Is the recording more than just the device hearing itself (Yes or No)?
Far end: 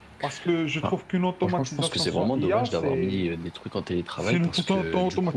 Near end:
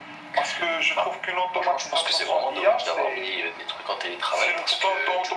No